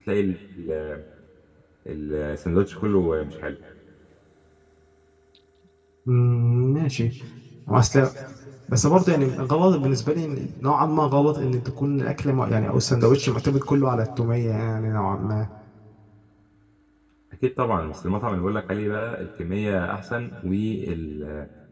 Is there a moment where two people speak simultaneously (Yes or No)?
No